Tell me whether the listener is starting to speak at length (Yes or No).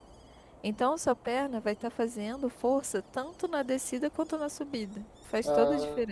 Yes